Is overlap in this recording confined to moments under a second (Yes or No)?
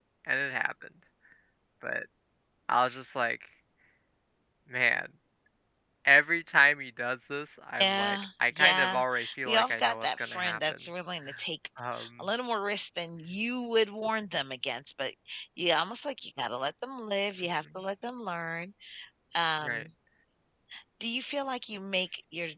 No